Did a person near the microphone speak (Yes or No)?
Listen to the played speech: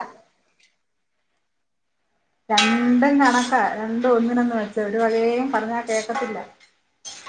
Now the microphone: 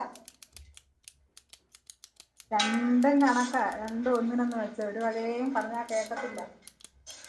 No